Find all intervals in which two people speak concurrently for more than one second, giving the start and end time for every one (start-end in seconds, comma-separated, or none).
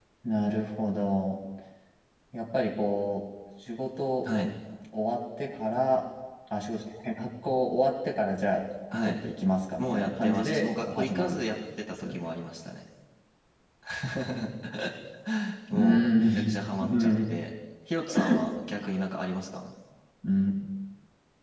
9.8-11.4, 15.7-17.4